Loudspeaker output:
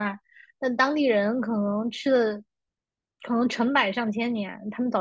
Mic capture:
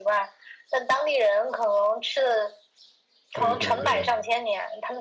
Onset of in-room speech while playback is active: 3 s

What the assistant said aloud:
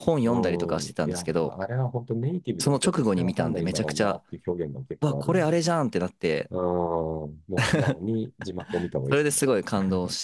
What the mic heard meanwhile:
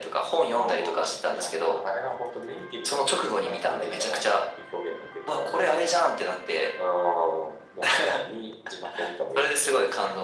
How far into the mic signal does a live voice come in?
none

